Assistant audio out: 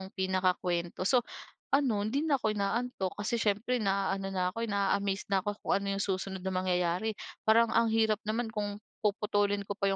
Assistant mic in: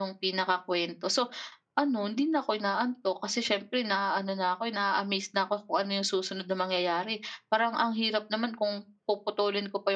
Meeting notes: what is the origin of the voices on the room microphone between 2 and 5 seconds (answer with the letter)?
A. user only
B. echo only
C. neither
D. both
B